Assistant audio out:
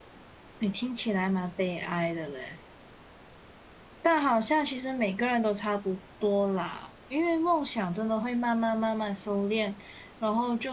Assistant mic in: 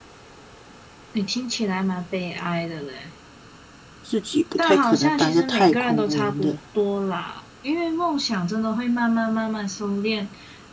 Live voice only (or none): 自己不太可能当一个太空人的，